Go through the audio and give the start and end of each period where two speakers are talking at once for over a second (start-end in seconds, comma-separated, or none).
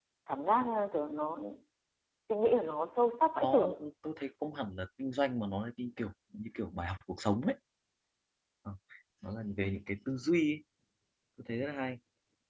none